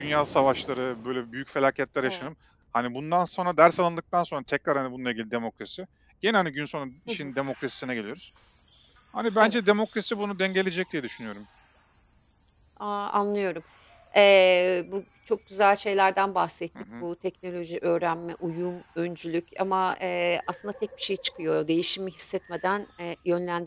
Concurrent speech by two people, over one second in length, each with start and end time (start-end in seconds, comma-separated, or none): none